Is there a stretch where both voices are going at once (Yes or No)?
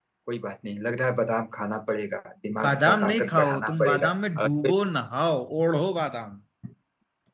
Yes